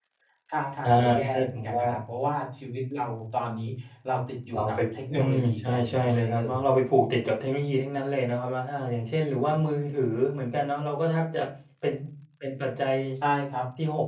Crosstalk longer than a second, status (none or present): present